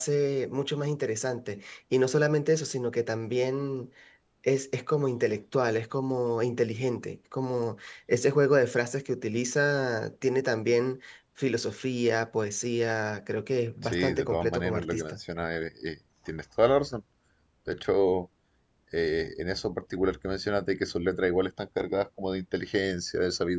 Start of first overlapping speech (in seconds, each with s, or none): 13.8 s